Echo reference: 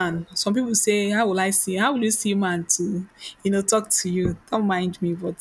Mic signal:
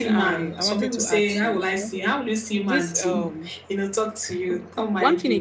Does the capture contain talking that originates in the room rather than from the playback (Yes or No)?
Yes